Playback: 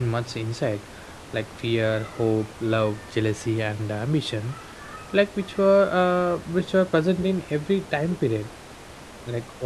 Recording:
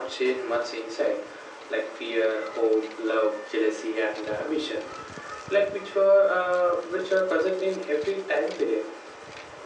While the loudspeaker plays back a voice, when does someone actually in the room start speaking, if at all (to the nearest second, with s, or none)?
none